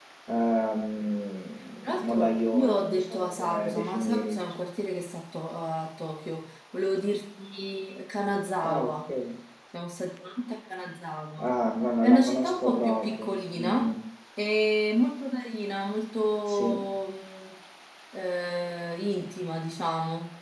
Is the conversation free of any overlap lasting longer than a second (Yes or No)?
No